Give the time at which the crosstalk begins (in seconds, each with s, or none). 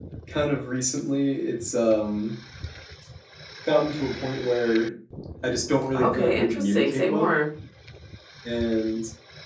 5.9 s